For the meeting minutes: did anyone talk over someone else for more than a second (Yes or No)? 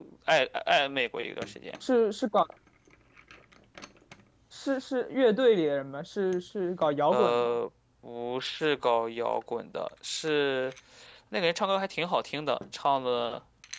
No